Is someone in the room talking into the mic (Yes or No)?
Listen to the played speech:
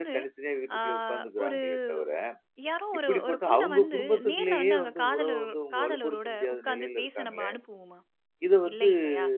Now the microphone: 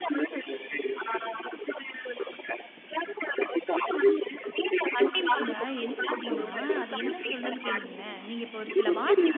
Yes